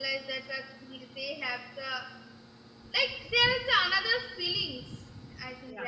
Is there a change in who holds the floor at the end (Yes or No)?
Yes